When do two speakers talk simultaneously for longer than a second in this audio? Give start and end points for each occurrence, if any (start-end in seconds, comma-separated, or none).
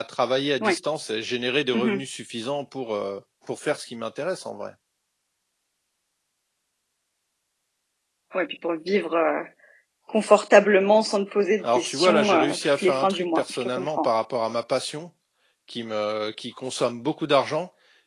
11.6-14.1